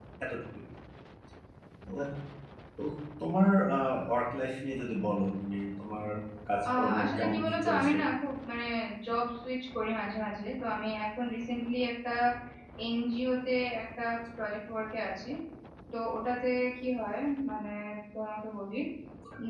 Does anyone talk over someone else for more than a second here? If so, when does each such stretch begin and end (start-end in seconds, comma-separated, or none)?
6.7-8.0